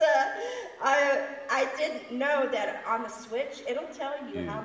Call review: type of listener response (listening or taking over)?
listening